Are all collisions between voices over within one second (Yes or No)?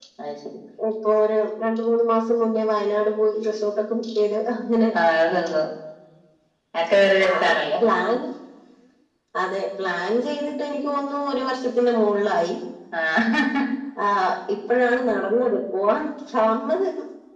Yes